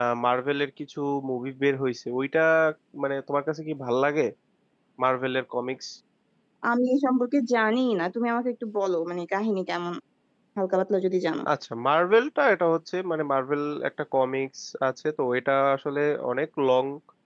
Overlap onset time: none

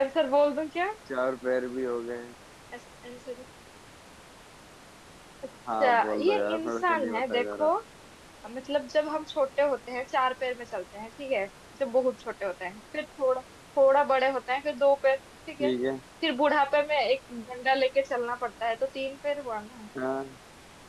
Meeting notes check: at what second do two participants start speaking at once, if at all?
5.8 s

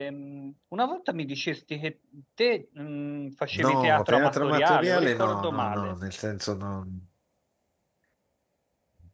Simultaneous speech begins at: 3.5 s

